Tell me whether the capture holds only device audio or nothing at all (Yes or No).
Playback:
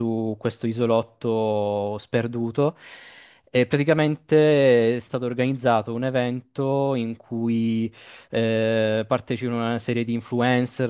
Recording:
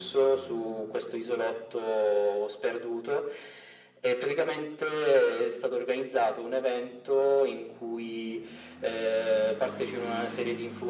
Yes